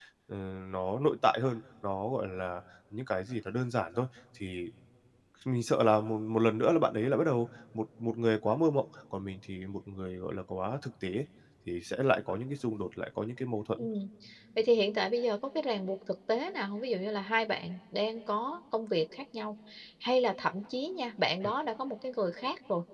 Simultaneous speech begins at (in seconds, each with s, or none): none